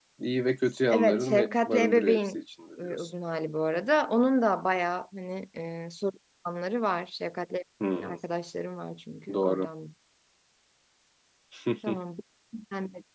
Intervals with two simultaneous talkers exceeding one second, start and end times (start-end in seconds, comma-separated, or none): 0.9-2.4